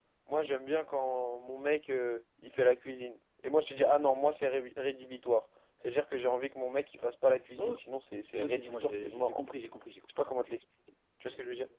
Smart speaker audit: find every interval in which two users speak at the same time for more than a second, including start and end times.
8.4-9.6

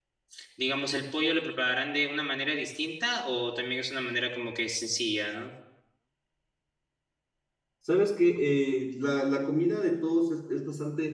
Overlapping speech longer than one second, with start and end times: none

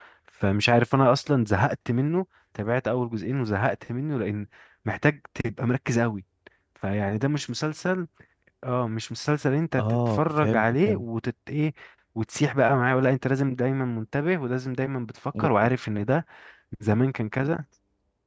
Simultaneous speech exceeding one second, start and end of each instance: 9.8-11.0

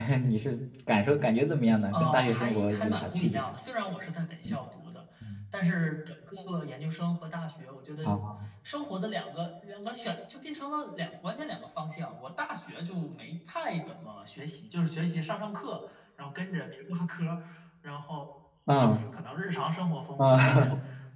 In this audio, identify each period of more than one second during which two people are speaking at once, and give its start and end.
1.9-3.4

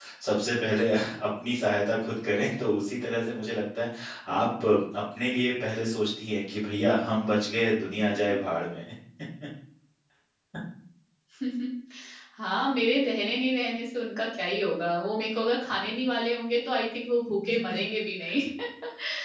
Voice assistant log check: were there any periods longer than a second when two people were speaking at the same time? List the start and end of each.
none

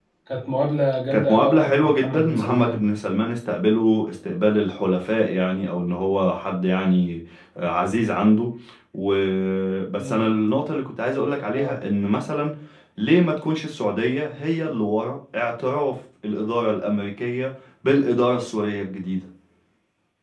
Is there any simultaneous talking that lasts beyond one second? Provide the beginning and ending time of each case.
1.1-2.8

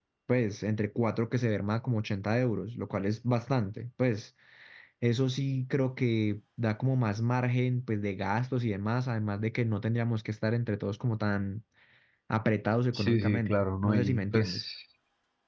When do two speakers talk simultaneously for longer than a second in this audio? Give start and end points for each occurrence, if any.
12.9-14.7

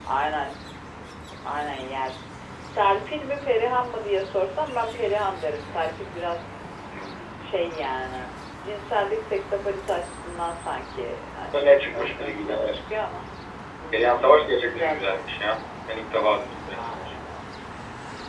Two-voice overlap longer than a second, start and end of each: 11.5-13.0, 13.9-15.6

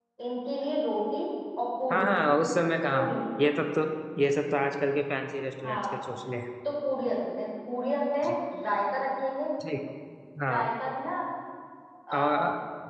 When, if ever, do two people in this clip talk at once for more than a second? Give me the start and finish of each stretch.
none

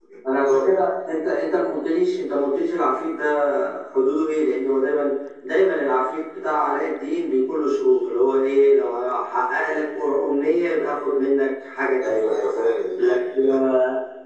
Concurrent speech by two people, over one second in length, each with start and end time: none

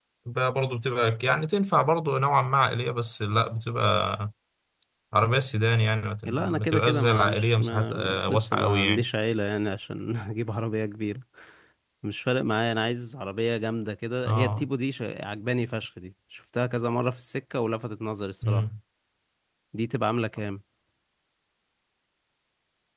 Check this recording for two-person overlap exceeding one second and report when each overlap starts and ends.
6.2-9.0

